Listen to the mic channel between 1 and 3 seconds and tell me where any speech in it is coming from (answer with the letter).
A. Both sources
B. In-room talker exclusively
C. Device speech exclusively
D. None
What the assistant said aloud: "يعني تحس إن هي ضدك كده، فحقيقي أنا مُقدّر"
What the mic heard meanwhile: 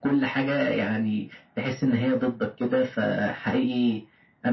C